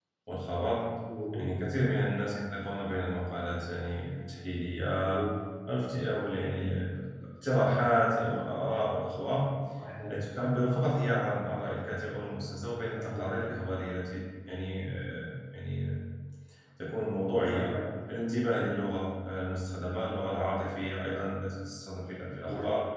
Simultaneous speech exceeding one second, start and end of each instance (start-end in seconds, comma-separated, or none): none